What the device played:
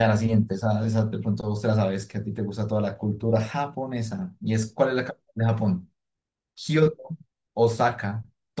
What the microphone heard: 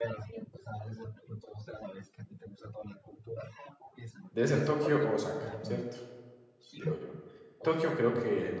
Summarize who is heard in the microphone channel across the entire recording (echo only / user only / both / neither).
both